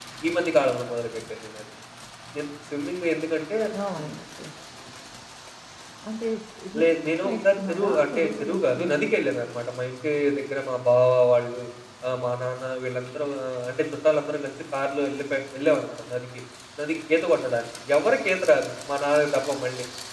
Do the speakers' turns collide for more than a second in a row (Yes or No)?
Yes